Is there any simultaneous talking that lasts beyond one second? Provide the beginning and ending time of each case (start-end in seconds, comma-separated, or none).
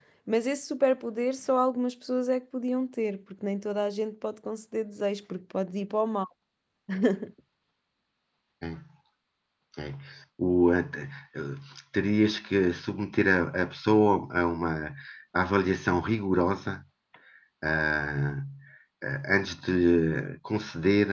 none